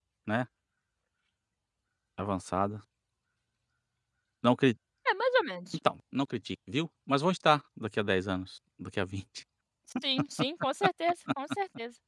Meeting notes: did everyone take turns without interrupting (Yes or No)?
Yes